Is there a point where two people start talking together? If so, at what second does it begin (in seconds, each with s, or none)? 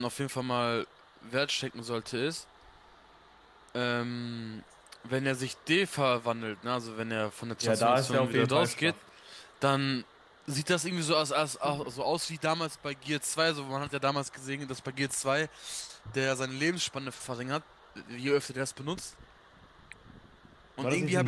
7.6 s